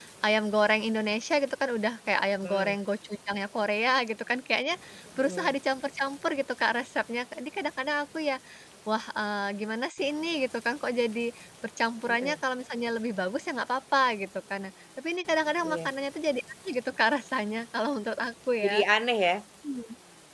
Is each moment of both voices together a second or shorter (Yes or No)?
Yes